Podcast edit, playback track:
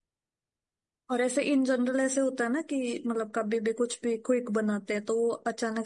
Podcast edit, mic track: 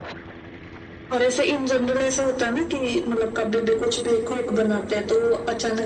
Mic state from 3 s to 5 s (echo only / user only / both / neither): echo only